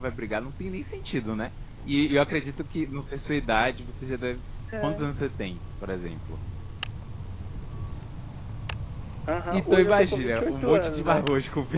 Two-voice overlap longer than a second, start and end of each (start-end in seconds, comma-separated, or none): 9.5-11.3